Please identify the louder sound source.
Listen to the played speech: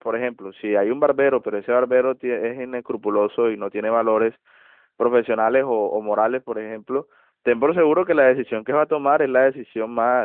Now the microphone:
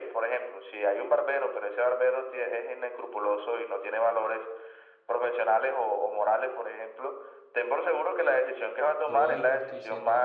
echo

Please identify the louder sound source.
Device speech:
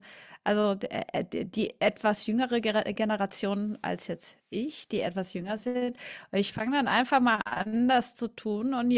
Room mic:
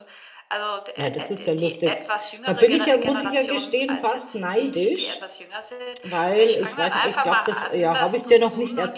user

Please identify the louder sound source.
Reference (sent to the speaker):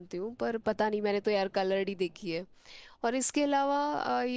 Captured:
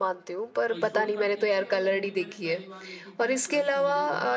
echo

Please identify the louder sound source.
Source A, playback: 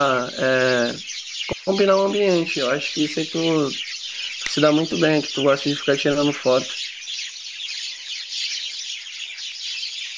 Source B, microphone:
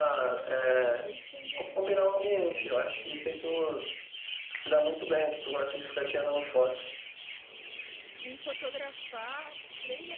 echo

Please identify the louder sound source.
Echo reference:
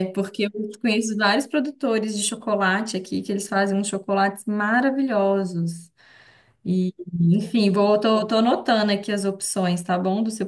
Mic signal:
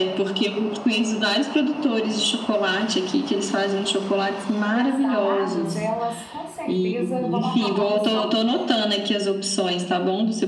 echo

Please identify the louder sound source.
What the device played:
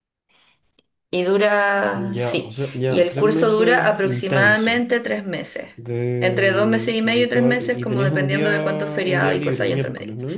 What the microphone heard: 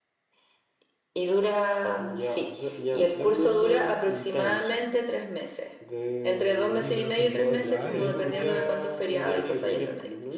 echo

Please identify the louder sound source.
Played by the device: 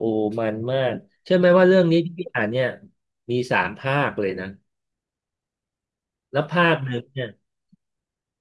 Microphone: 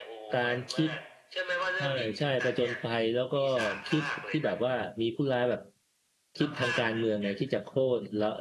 user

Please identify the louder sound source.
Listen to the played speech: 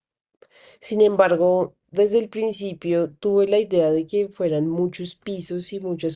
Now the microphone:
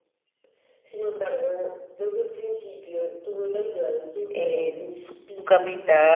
user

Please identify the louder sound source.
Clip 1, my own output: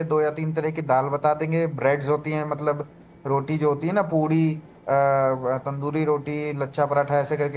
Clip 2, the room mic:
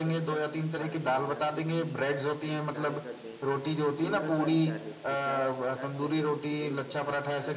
echo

